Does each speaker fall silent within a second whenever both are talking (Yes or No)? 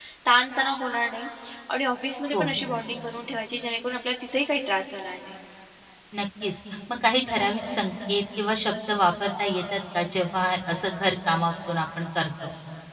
Yes